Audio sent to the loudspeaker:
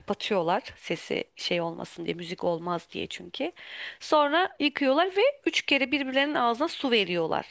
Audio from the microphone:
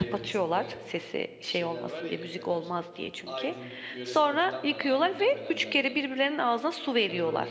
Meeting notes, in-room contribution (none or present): present